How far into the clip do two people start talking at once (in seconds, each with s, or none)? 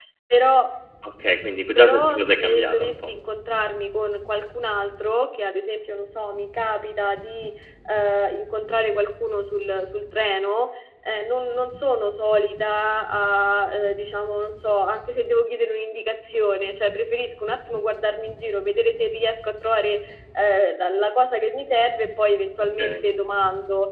1.8 s